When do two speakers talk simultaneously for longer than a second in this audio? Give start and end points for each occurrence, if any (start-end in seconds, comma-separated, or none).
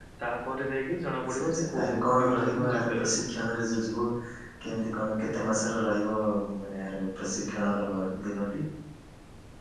1.2-3.2